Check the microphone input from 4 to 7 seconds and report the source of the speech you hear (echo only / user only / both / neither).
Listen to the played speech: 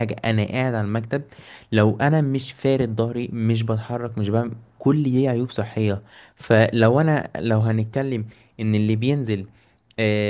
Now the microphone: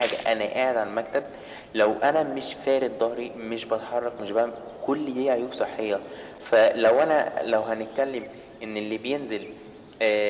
echo only